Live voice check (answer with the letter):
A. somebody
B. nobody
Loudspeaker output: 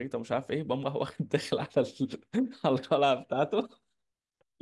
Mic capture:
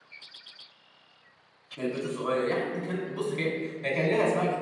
A